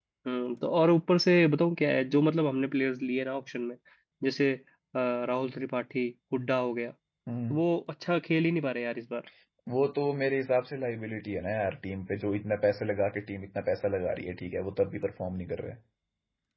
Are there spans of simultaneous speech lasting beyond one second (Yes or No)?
No